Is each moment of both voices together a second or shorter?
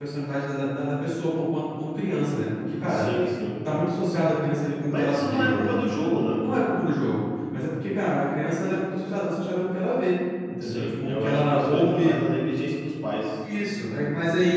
No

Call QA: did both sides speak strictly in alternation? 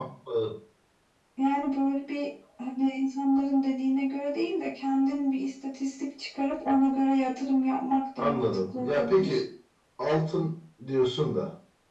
No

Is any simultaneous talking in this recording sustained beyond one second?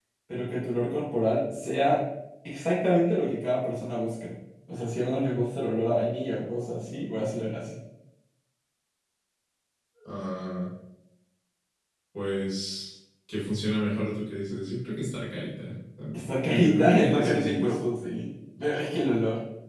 Yes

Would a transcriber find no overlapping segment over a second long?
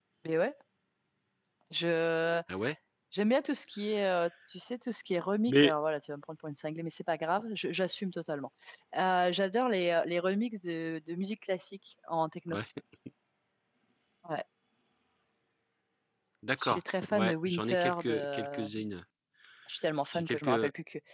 No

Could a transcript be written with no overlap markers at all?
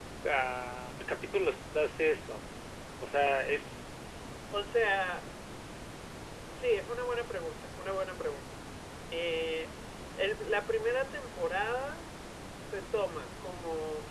Yes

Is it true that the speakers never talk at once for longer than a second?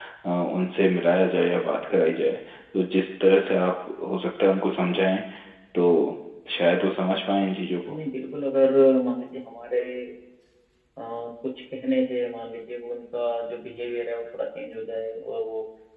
Yes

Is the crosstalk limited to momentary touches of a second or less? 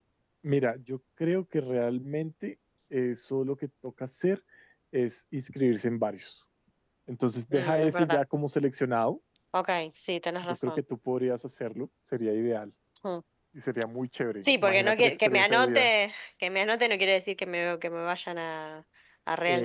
No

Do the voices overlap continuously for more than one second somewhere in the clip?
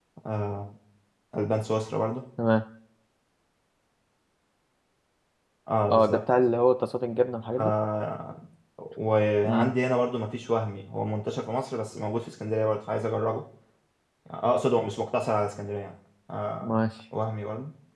No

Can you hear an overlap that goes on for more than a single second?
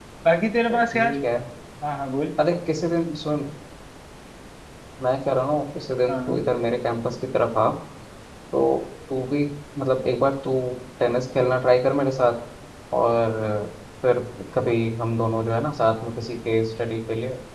No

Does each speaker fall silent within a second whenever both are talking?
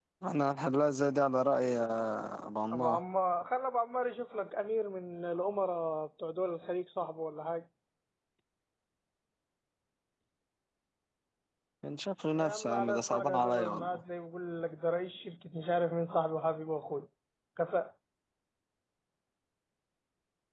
No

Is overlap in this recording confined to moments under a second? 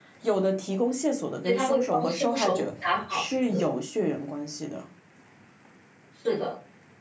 No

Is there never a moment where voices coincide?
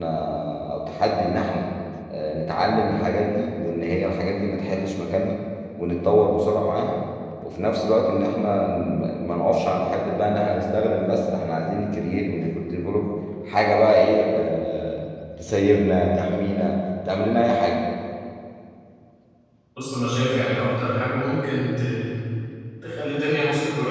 Yes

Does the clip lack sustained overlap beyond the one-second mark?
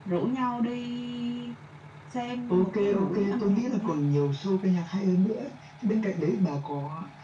No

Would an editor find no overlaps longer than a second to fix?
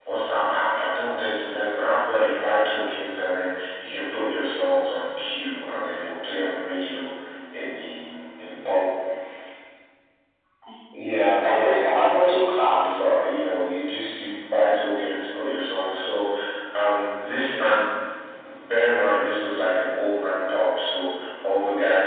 No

